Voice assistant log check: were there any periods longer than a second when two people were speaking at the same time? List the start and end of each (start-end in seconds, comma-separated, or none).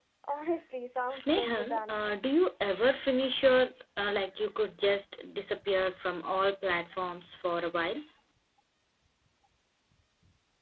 1.1-2.3